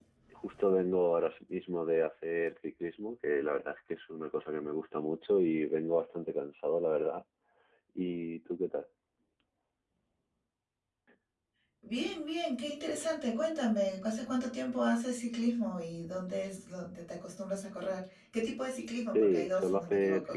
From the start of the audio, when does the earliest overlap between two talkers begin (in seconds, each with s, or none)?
19.1 s